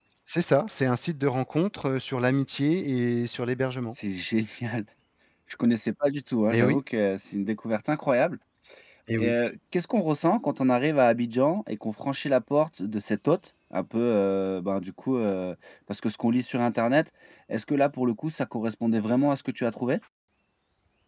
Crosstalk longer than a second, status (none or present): none